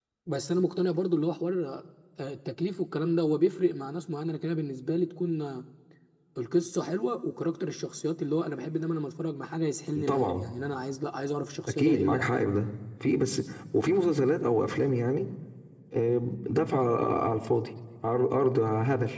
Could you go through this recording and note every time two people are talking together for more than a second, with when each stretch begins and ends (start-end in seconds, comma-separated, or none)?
none